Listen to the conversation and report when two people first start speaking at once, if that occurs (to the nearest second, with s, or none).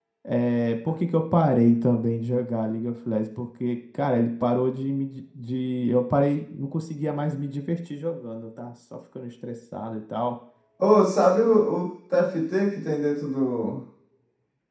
none